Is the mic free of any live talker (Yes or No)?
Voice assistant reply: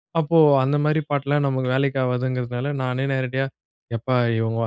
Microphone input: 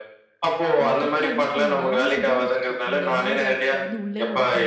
No